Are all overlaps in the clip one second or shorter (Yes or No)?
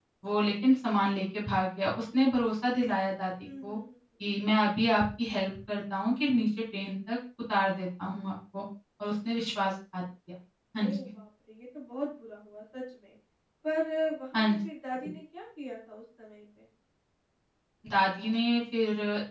Yes